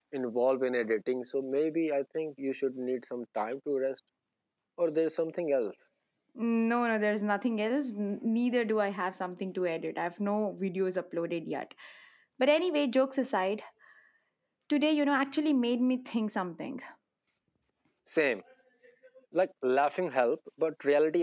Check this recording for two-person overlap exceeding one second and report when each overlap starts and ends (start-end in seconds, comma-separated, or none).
none